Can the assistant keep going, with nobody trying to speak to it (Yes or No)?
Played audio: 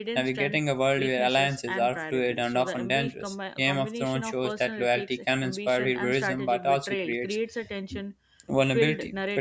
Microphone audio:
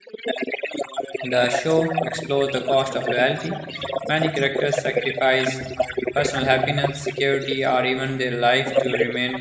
No